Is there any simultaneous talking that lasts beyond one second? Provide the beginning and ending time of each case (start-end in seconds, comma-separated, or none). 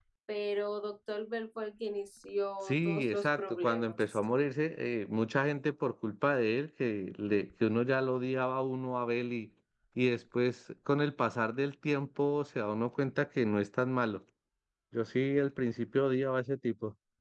2.6-4.2